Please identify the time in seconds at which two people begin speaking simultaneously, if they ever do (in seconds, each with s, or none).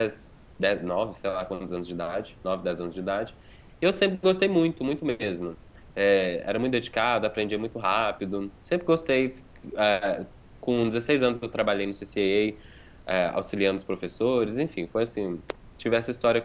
none